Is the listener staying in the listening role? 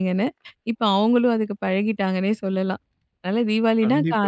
No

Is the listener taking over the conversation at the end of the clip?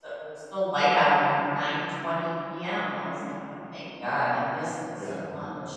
Yes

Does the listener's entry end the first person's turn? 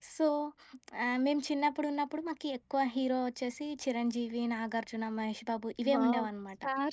Yes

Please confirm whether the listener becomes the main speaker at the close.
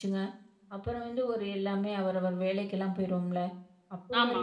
No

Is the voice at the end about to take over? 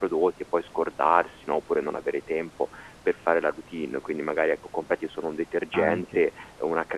No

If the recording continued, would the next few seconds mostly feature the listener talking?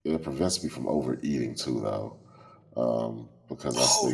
Yes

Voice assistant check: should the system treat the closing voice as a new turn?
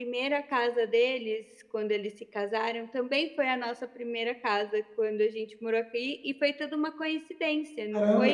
Yes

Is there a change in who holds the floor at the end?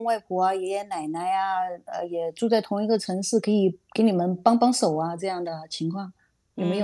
Yes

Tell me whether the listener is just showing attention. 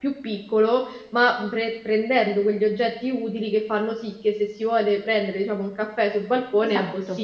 No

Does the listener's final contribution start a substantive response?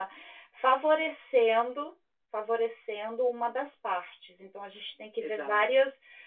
No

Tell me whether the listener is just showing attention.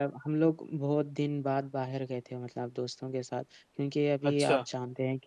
Yes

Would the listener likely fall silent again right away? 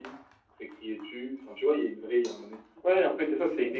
No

